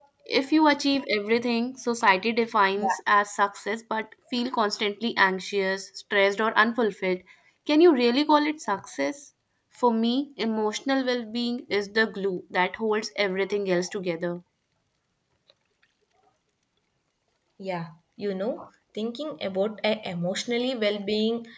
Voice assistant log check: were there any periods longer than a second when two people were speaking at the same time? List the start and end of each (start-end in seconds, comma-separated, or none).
none